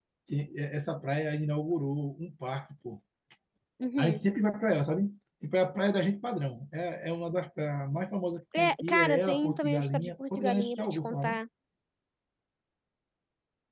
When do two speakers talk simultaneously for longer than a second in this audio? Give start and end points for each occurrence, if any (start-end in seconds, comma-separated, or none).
8.6-11.4